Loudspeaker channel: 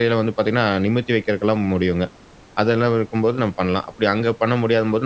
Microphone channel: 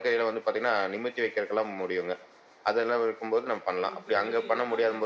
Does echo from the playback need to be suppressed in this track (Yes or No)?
Yes